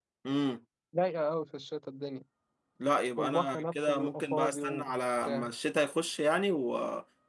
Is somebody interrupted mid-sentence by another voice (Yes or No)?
Yes